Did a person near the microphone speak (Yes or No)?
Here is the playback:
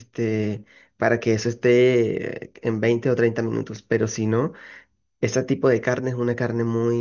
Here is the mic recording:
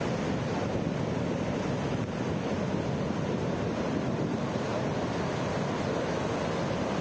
No